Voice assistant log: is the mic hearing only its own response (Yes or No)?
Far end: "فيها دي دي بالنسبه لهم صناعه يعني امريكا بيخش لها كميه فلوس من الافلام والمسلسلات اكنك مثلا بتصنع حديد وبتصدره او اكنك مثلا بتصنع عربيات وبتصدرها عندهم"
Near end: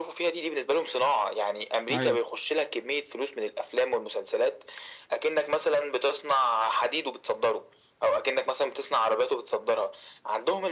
No